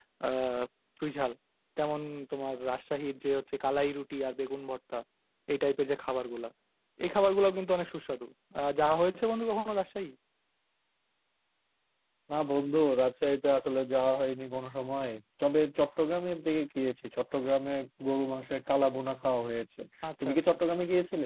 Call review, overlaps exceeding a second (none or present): none